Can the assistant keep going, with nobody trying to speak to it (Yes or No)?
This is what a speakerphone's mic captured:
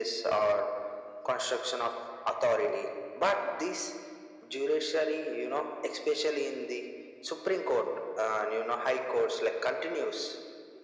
Yes